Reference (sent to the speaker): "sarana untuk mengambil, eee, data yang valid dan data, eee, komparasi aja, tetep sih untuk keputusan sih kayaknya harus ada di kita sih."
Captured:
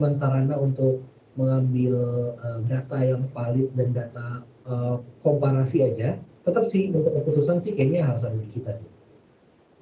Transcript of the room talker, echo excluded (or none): none